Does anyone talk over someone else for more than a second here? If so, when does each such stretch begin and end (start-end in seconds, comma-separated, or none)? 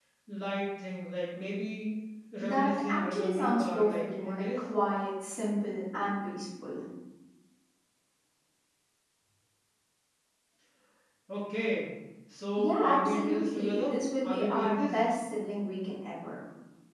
2.4-4.6, 12.6-15.0